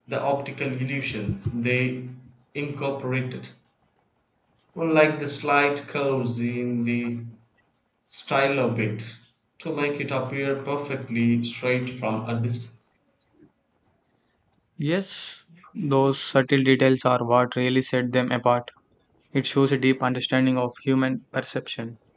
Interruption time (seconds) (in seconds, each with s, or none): none